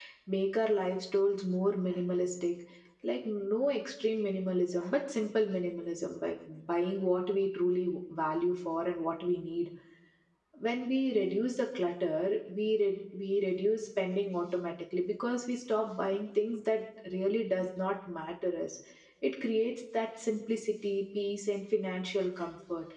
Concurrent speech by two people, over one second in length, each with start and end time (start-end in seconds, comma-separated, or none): none